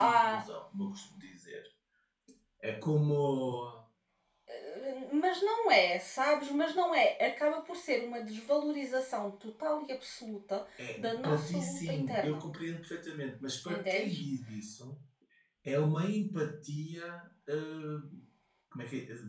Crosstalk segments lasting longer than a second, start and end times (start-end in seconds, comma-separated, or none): 11.0-12.4